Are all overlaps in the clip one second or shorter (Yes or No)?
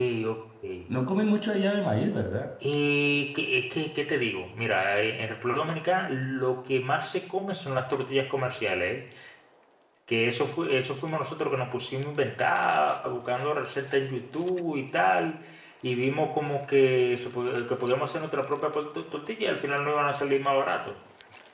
Yes